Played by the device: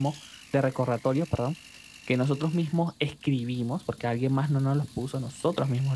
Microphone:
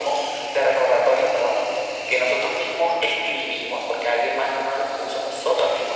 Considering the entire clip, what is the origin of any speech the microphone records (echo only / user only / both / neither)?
echo only